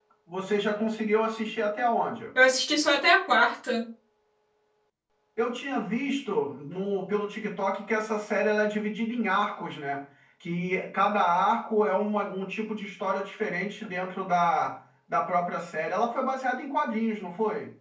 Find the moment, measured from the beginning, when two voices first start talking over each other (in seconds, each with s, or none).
none